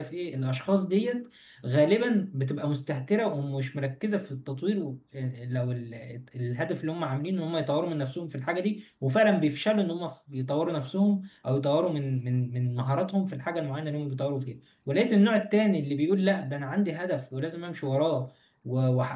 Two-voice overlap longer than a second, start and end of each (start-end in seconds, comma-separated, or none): none